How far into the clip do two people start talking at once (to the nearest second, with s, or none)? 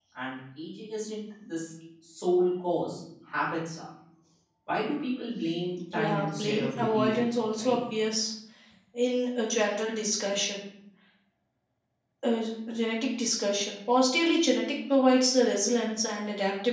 6 s